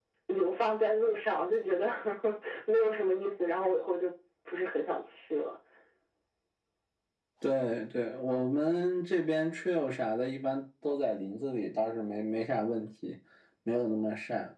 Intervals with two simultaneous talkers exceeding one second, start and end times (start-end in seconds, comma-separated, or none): none